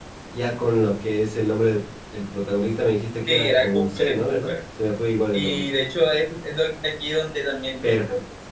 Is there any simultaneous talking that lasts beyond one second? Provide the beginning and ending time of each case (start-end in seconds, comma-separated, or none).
3.3-4.5